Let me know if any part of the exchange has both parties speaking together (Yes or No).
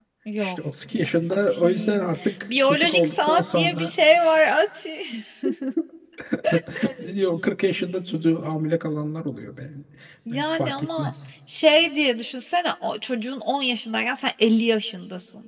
Yes